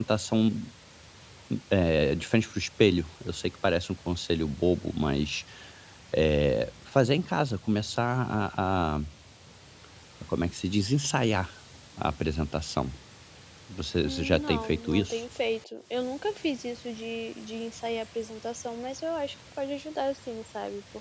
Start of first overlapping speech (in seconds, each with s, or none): 14.0 s